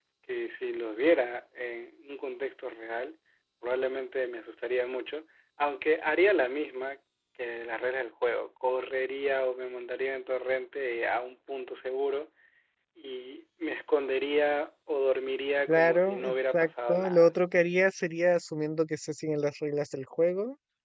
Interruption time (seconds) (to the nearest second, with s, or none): 16 s